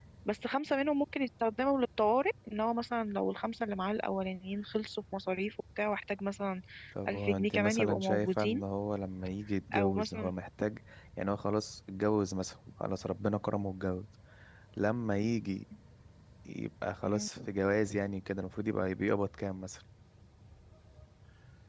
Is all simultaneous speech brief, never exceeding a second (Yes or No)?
No